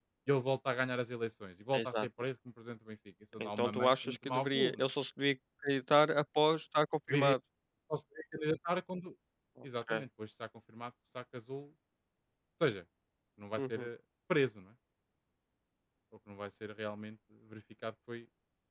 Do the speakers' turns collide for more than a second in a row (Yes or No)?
Yes